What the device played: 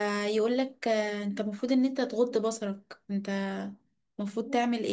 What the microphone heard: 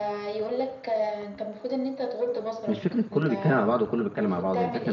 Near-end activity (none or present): present